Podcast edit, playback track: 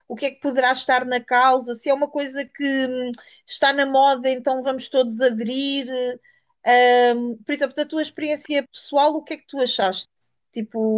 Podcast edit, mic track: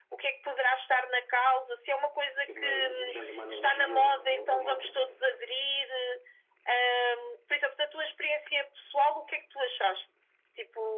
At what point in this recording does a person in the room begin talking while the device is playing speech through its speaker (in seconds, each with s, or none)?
2.4 s